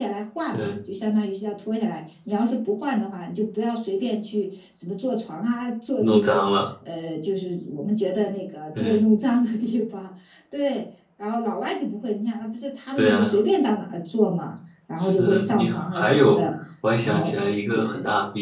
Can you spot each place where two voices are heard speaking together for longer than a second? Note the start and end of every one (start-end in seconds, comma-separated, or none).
15.0-16.4